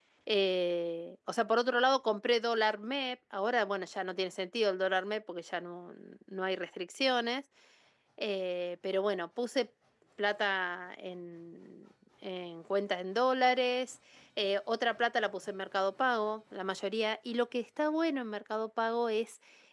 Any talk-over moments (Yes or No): No